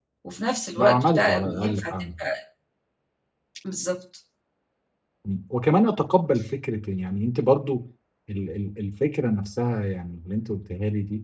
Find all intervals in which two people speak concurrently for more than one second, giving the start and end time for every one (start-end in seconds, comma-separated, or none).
0.8-2.1